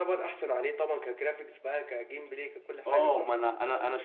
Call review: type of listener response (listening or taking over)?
taking over